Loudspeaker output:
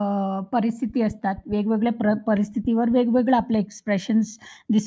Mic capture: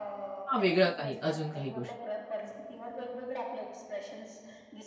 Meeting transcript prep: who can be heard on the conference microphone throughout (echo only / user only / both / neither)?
both